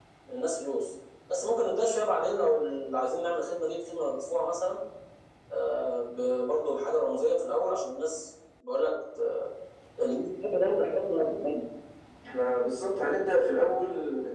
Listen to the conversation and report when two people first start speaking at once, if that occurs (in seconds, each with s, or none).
none